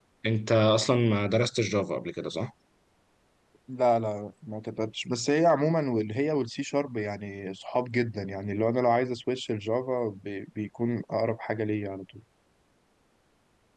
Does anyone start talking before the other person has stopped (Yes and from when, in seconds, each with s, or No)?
No